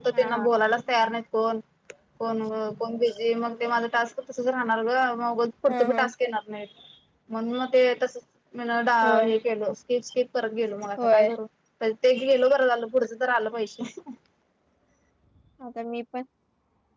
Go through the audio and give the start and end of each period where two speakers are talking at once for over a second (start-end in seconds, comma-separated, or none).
none